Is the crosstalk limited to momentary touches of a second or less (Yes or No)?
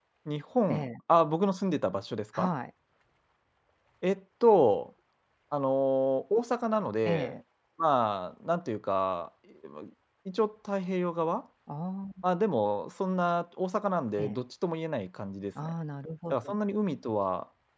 Yes